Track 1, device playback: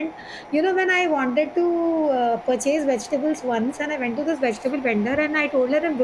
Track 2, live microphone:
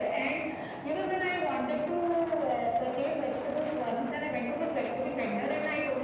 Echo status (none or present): present